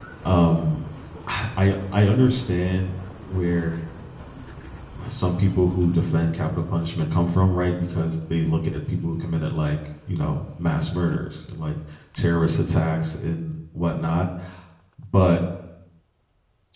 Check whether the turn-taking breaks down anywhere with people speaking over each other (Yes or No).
No